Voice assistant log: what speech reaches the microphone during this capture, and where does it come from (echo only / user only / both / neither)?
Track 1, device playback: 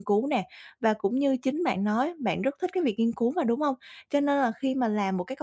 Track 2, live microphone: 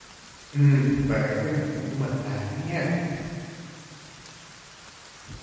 user only